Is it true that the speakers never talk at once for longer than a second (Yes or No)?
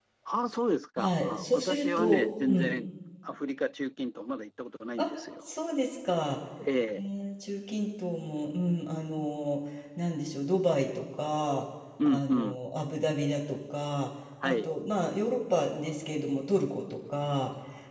No